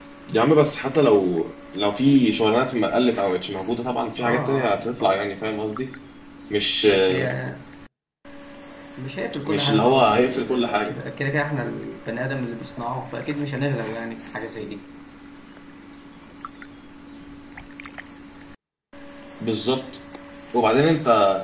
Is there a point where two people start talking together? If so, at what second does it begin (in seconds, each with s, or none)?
4.2 s